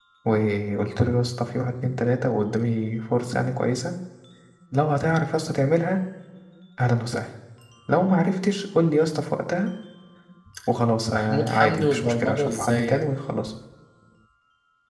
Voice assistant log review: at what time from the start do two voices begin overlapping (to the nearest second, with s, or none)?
11 s